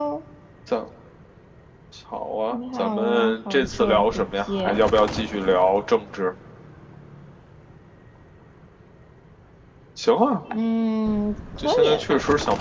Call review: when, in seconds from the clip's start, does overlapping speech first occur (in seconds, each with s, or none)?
2.5 s